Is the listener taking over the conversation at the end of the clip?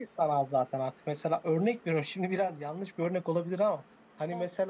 No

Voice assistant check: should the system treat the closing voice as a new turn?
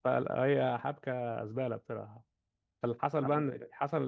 No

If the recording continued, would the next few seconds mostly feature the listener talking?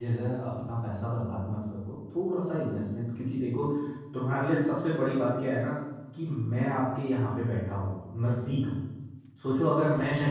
No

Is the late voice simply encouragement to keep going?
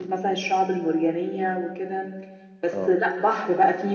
Yes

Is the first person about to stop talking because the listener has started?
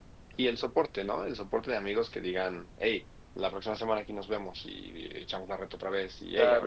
Yes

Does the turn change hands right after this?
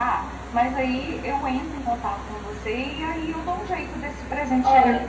Yes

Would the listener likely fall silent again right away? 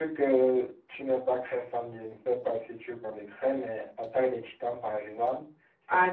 No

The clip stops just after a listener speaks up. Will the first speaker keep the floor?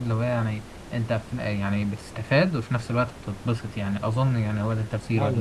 No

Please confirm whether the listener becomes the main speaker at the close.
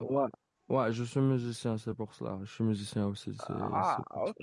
Yes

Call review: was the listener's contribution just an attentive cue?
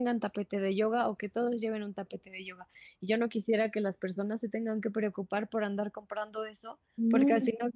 Yes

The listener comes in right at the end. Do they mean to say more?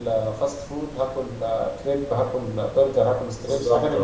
Yes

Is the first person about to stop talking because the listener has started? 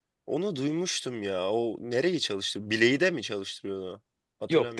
Yes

